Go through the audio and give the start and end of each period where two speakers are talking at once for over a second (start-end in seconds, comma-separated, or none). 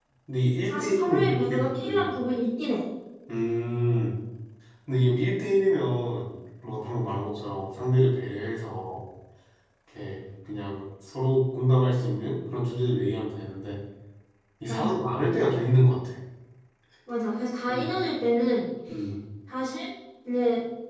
0.6-2.2